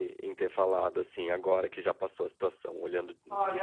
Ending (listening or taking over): taking over